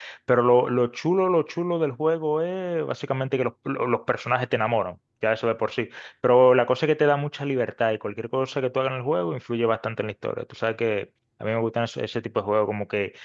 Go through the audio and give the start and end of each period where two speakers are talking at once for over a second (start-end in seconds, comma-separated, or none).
none